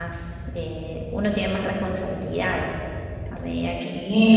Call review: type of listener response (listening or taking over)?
taking over